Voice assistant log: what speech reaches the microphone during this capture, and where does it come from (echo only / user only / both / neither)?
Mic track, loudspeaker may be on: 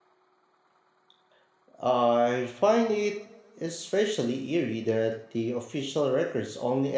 user only